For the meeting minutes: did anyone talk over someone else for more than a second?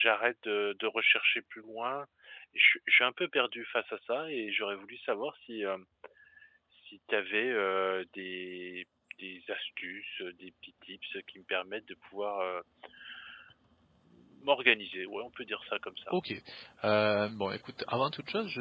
No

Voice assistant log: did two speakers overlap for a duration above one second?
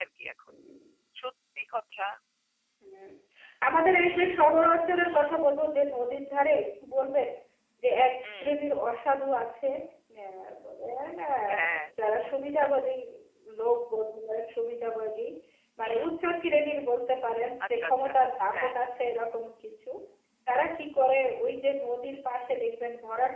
No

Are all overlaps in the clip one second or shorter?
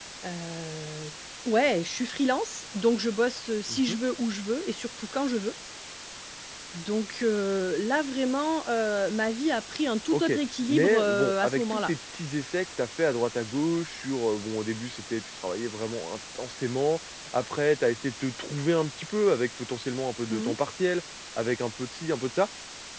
No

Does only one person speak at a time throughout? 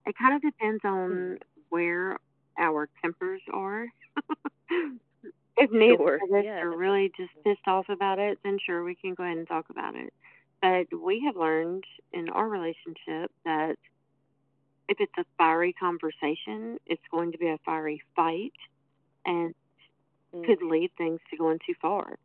No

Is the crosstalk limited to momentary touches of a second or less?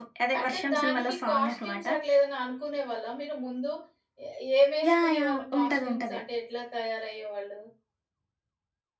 No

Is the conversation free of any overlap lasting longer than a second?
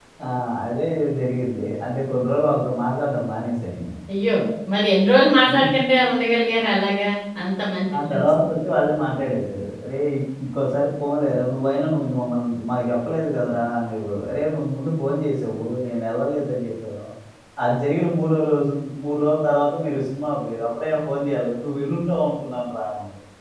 Yes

